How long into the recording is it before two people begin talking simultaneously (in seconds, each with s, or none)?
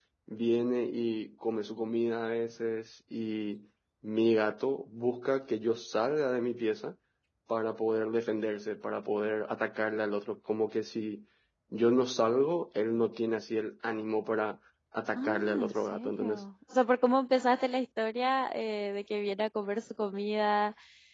15.2 s